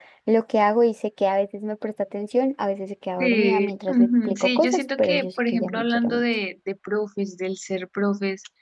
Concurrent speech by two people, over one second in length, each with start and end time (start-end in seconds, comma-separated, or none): 3.2-6.2